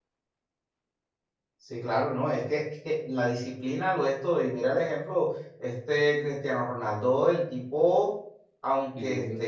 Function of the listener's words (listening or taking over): listening